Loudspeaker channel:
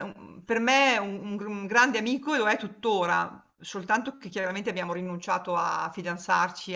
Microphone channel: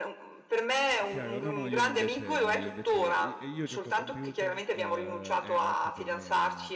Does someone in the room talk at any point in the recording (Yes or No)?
Yes